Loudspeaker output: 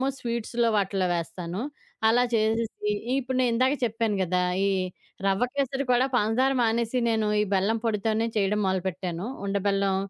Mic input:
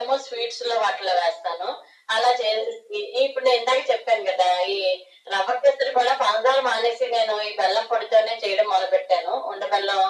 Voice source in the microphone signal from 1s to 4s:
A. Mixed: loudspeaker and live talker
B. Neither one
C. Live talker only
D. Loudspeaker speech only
D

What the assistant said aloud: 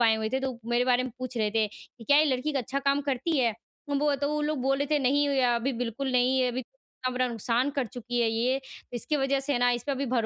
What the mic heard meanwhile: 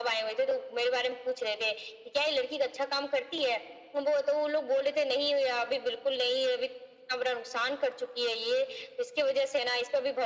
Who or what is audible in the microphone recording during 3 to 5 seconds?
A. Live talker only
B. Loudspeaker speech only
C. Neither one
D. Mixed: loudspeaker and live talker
B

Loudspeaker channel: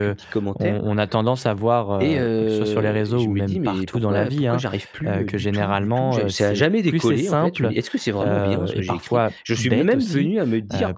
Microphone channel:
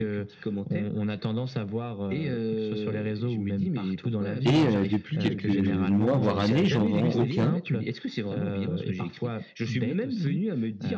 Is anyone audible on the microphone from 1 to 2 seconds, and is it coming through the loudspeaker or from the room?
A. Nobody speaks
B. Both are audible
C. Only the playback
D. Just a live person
C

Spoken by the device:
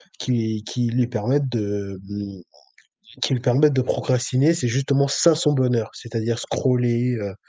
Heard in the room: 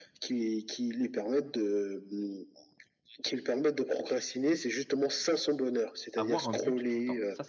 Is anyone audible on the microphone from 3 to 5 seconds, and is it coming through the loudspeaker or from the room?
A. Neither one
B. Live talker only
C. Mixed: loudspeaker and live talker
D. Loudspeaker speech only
D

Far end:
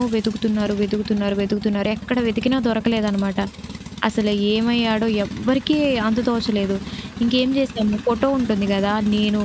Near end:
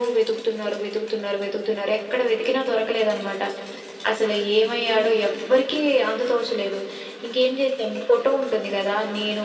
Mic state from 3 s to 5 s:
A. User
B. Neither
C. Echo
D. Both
C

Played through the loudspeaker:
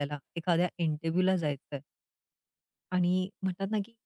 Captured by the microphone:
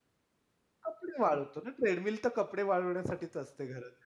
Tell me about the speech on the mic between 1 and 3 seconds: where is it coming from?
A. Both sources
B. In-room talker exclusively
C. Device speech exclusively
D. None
B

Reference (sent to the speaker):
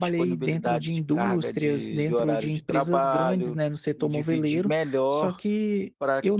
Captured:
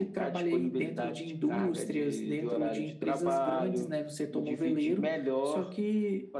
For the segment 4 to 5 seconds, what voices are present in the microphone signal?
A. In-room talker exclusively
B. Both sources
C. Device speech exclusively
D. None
C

